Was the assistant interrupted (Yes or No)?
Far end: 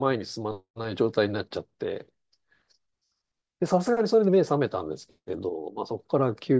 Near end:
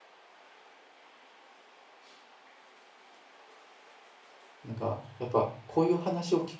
Yes